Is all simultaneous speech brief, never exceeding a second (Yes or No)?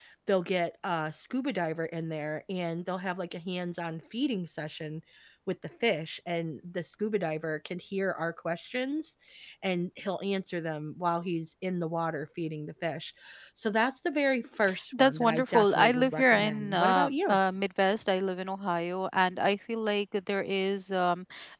No